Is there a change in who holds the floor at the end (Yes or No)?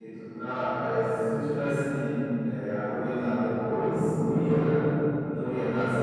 No